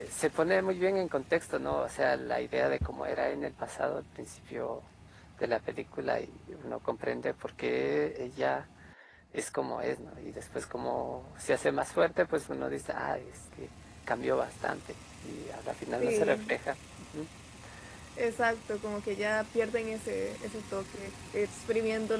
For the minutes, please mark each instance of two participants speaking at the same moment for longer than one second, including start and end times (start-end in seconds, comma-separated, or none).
none